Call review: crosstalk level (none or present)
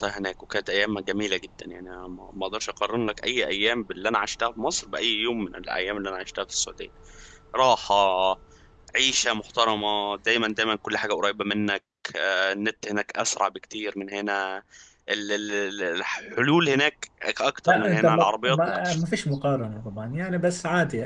present